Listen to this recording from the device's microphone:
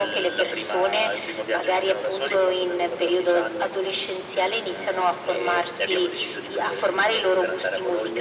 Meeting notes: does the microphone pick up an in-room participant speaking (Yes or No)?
No